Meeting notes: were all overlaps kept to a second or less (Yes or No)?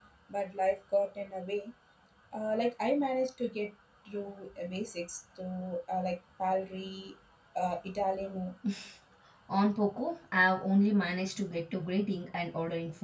Yes